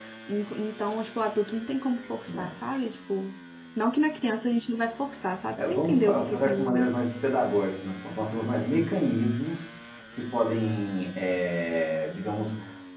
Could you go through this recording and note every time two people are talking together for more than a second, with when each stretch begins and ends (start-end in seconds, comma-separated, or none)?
5.6-6.9